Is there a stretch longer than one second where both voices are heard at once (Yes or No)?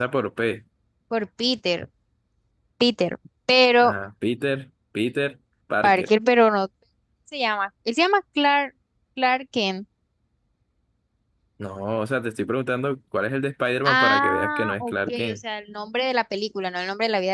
Yes